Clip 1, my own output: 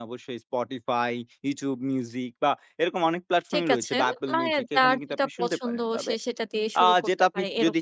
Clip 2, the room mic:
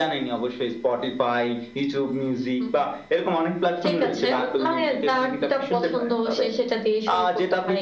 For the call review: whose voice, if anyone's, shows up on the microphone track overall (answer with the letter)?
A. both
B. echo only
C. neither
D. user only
A